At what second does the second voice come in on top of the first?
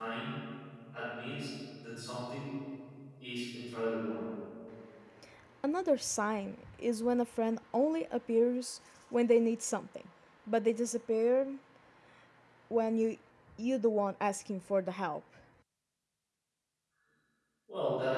none

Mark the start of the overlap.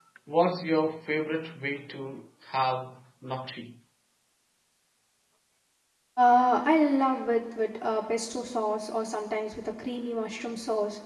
none

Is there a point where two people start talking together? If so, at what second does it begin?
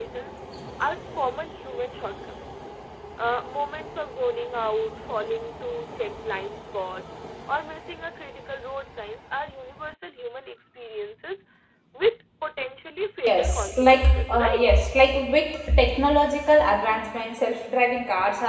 13 s

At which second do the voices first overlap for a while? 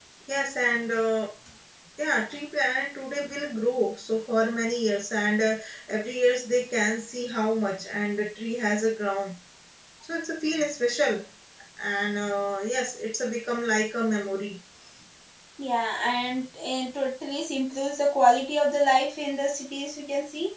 none

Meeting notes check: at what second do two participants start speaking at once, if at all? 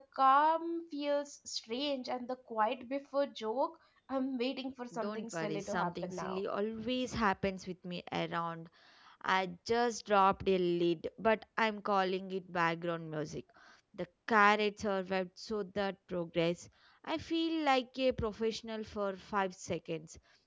5 s

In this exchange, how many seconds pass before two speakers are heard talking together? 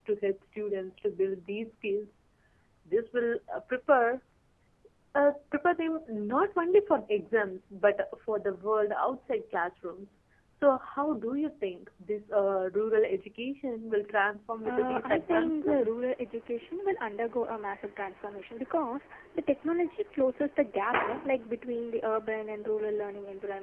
15 s

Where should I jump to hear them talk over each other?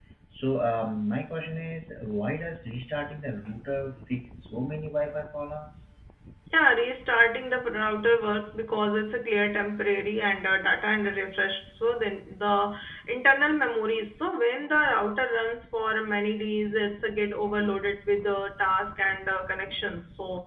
none

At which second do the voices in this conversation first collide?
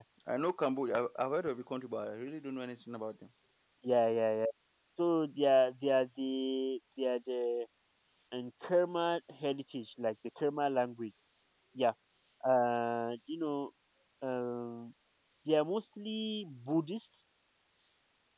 none

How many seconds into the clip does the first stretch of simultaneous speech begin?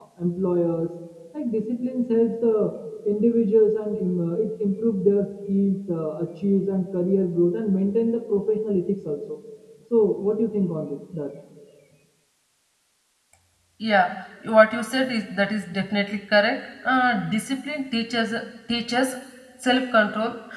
none

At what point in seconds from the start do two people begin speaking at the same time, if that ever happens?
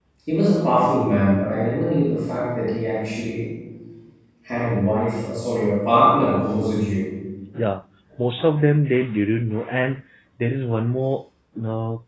none

